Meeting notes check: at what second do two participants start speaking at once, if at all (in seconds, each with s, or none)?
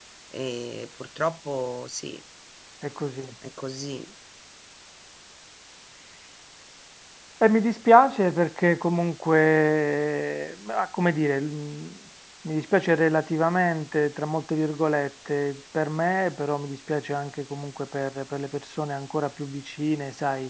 none